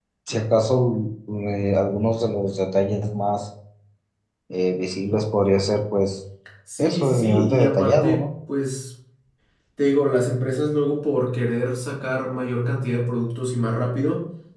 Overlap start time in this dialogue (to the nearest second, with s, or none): 7 s